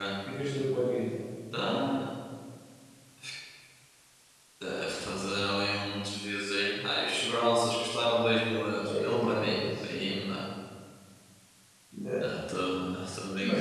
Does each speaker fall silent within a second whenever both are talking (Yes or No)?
No